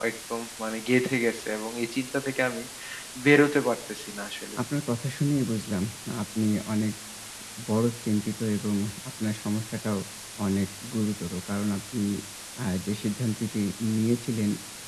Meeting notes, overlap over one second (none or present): none